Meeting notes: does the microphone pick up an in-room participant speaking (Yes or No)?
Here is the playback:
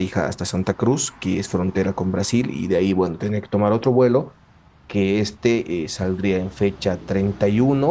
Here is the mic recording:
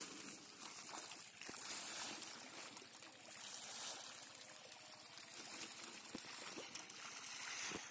No